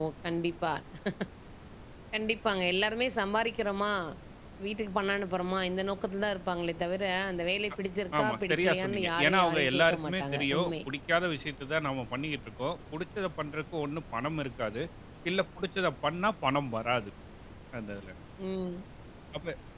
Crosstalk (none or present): present